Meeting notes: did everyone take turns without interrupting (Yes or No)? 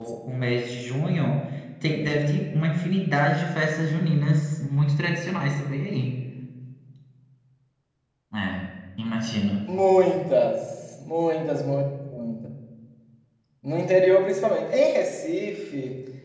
Yes